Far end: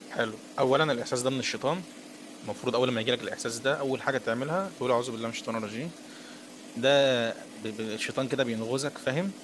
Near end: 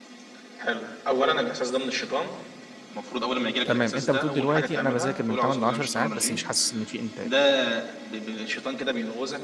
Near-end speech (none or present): present